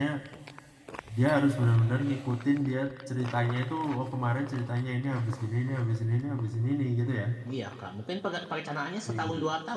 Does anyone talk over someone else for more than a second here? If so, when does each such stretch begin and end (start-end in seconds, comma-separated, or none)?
none